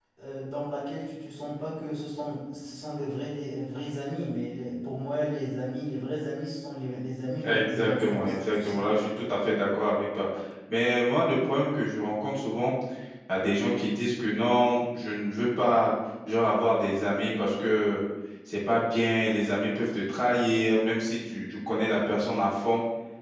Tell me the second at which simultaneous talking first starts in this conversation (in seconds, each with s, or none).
7.4 s